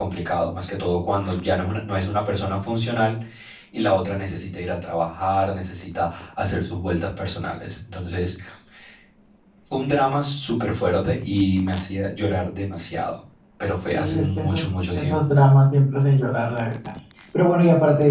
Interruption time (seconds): 13.9 s

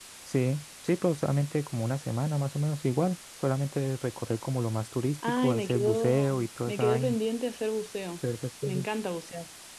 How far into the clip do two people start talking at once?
5.2 s

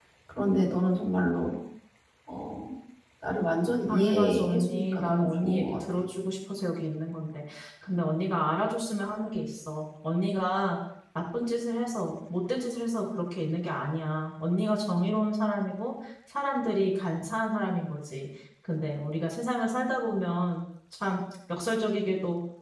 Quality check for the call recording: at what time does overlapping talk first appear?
3.9 s

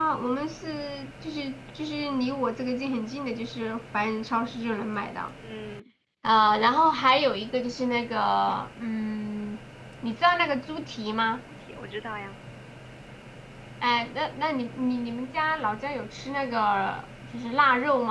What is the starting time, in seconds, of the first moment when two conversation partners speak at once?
none

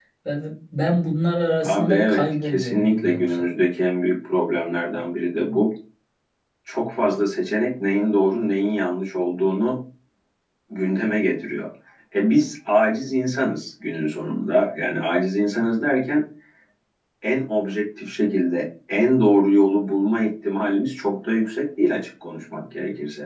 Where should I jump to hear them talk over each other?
1.6 s

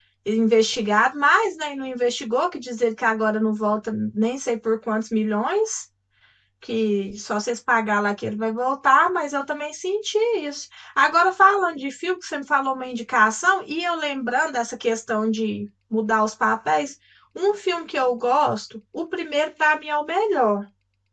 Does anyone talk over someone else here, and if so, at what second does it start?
none

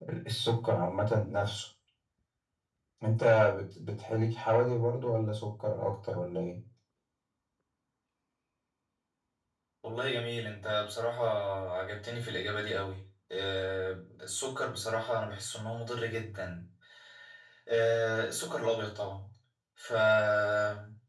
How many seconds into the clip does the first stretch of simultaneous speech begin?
none

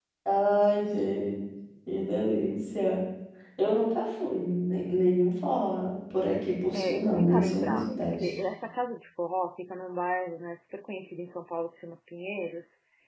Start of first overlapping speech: 6.7 s

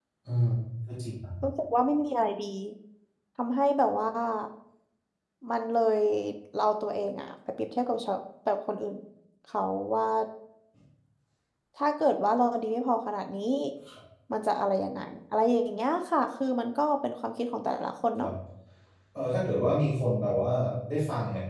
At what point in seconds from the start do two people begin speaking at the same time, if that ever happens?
none

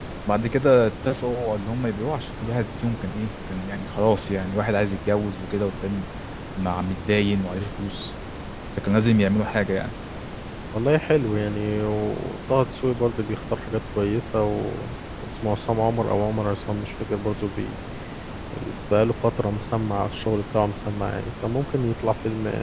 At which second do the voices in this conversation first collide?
none

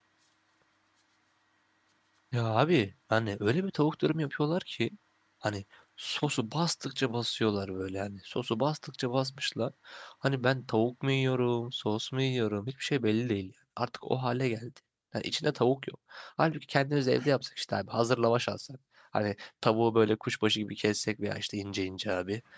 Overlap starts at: none

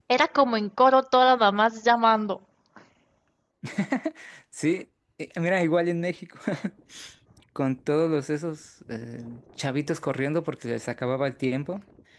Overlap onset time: none

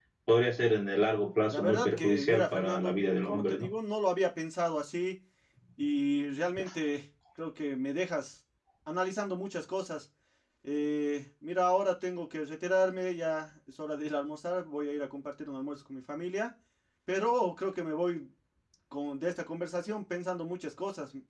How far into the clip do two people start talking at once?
1.5 s

